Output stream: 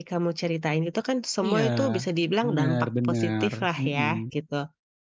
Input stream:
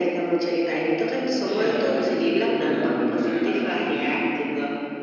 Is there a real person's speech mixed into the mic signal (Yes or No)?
No